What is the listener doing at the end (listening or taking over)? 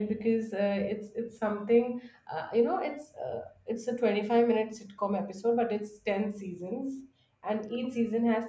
listening